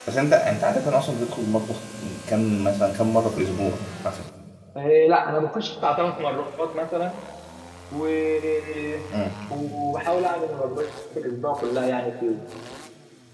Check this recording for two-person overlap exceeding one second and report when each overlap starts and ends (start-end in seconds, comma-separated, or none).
none